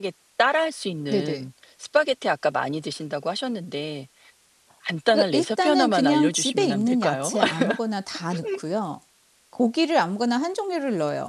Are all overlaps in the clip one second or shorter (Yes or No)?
No